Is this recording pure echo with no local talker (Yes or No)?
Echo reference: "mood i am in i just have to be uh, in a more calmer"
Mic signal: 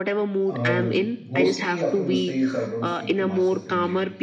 No